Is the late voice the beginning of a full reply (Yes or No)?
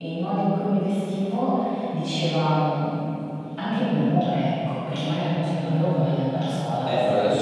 Yes